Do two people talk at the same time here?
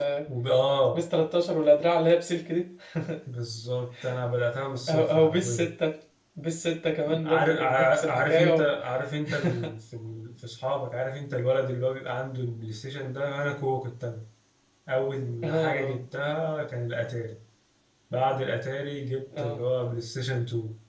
Yes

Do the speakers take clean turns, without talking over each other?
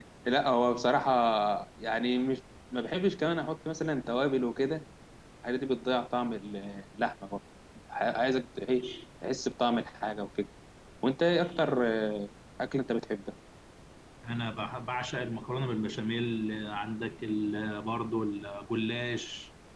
Yes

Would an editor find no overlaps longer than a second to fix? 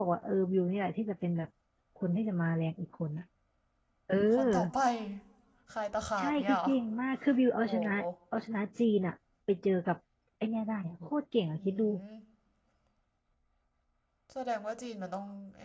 Yes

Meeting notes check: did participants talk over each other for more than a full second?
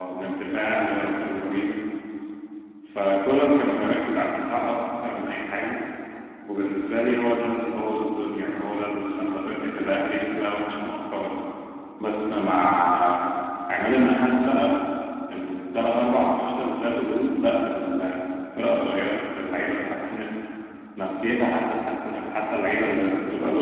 No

